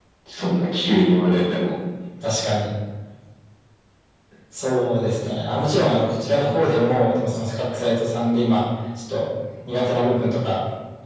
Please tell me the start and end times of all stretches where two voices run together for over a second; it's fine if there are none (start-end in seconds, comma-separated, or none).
none